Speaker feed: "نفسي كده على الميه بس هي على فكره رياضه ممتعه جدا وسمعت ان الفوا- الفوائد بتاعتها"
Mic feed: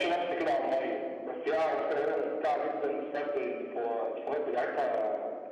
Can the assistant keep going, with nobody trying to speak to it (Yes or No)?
Yes